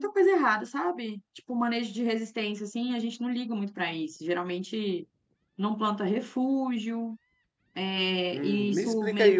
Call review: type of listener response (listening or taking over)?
taking over